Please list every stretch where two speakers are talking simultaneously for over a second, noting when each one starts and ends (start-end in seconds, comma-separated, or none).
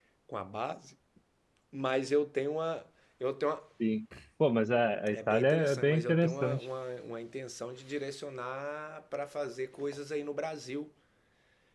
5.1-6.7